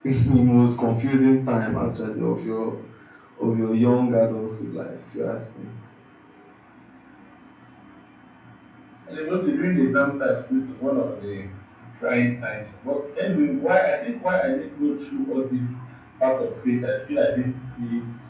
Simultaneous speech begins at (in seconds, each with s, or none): none